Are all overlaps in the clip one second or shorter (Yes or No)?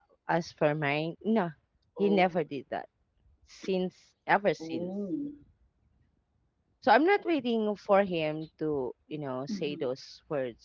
Yes